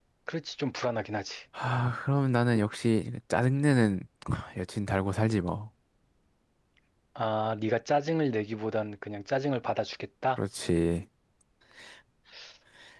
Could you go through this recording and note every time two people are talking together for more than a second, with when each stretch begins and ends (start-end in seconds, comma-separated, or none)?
none